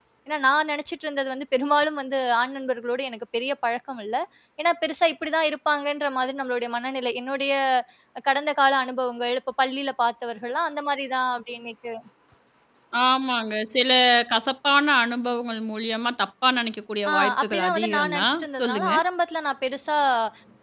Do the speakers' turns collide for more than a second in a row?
Yes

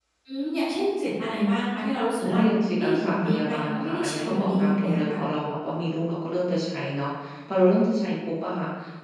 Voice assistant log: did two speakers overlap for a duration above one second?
Yes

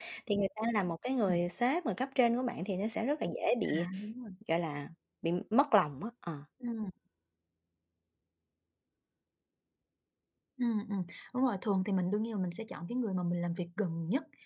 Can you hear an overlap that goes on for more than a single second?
No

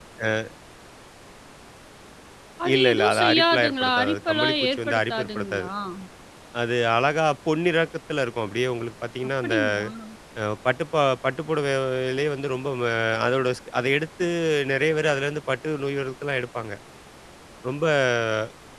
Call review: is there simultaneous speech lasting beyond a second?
Yes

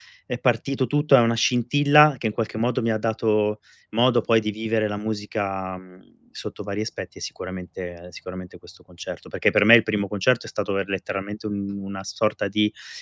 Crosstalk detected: No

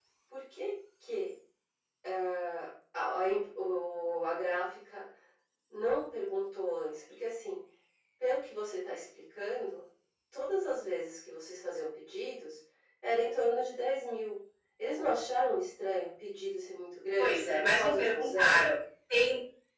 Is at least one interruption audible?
Yes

